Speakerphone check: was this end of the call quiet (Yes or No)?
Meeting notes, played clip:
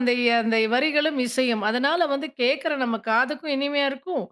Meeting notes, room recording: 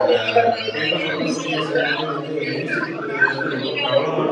No